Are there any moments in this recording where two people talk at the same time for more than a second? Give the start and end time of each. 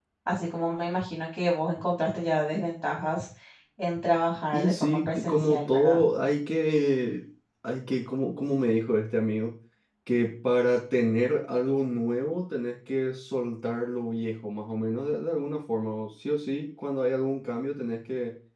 4.5-6.0

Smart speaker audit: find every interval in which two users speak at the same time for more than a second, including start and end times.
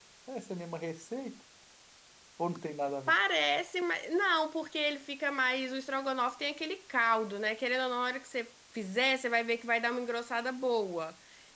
none

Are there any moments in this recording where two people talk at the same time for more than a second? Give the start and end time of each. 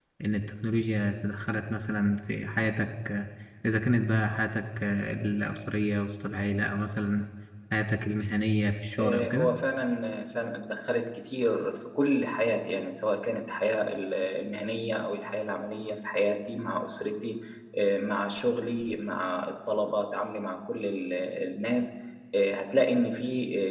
none

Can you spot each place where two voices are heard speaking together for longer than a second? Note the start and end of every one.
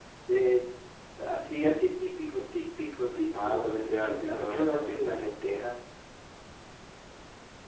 3.5-5.3

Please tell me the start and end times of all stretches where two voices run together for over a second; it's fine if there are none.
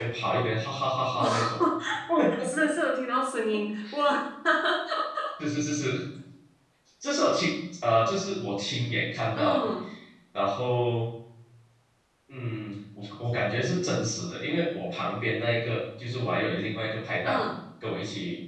none

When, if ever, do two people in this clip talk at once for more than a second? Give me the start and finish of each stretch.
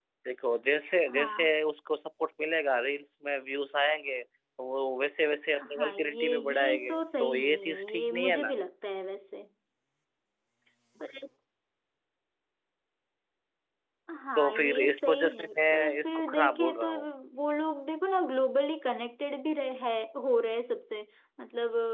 5.7-8.5, 14.4-16.9

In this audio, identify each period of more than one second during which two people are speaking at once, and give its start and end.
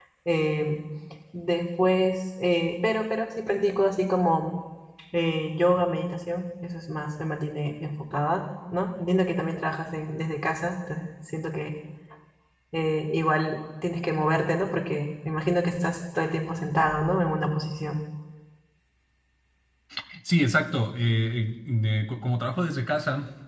none

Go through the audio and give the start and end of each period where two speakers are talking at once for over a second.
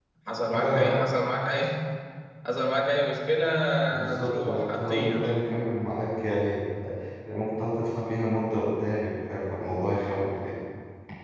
4.1-5.3

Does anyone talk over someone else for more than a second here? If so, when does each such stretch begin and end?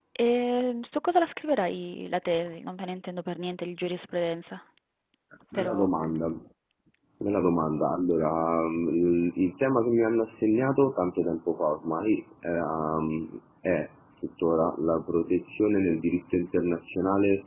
none

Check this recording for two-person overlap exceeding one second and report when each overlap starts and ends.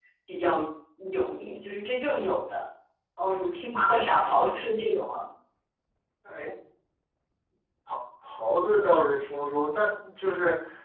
none

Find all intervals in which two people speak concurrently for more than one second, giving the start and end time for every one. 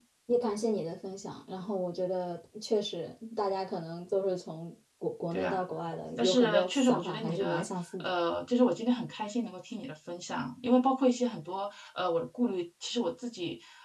6.2-7.6

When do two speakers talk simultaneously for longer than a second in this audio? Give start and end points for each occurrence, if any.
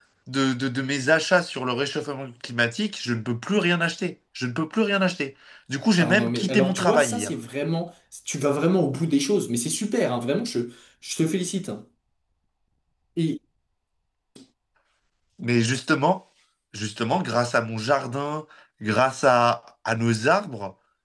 6.0-7.3

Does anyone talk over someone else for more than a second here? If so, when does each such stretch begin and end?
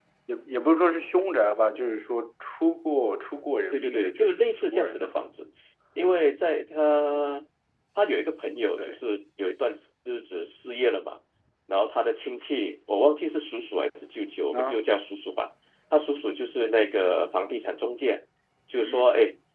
3.7-5.2

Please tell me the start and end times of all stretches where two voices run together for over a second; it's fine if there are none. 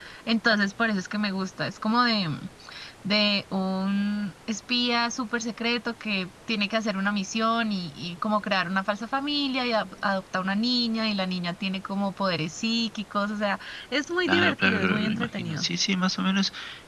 14.3-15.7

